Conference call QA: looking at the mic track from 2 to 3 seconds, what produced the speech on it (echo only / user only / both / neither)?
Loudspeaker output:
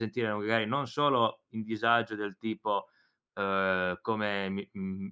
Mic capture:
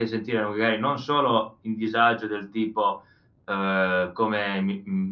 echo only